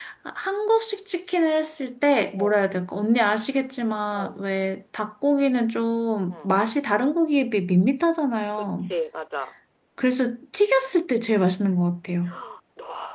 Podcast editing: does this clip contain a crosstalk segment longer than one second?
No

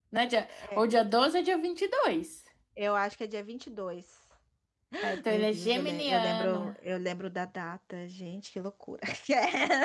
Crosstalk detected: Yes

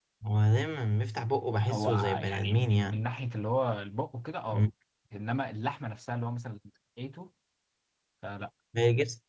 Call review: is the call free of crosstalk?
No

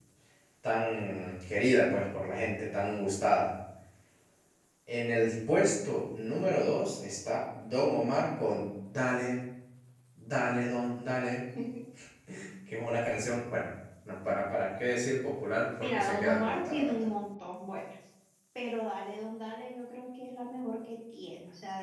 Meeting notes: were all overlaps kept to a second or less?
No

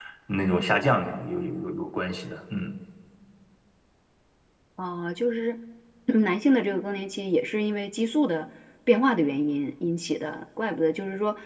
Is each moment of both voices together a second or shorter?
Yes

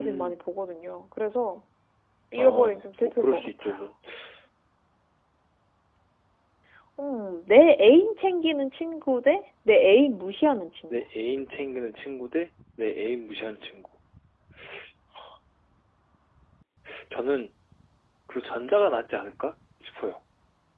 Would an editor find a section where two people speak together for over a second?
Yes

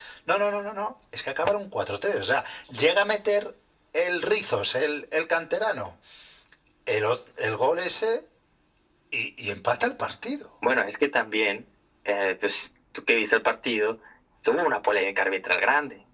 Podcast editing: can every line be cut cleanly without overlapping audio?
Yes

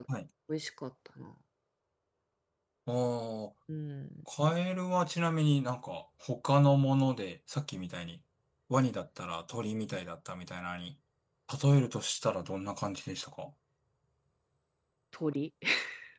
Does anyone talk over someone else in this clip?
No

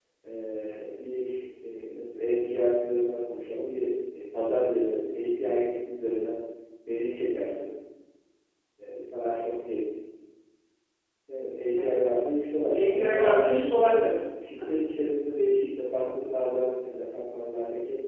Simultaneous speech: Yes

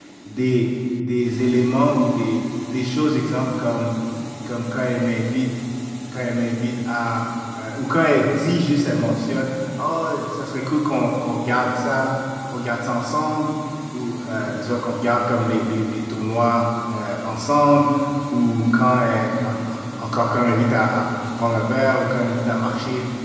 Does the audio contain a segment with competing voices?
No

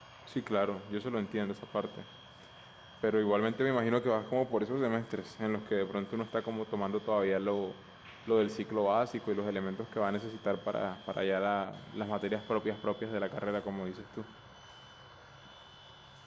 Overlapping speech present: No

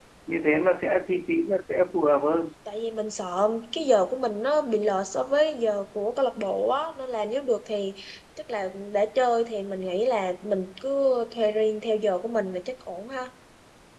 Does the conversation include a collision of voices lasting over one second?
No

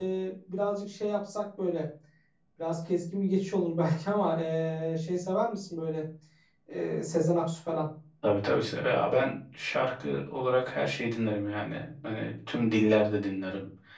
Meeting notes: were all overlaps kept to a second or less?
Yes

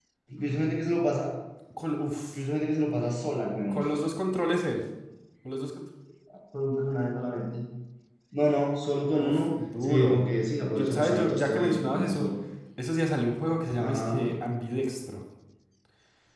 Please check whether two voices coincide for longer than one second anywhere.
Yes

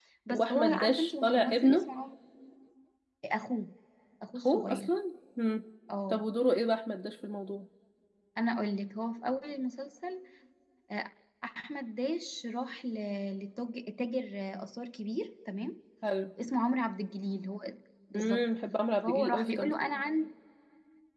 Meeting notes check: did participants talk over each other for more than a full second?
Yes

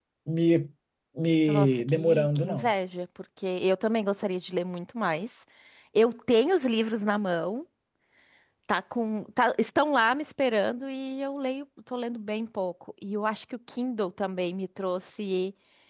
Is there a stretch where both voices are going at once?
Yes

